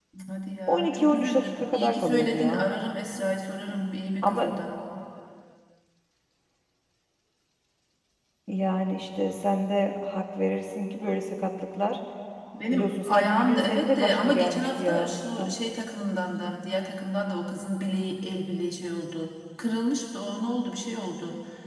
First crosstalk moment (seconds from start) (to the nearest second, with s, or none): 1 s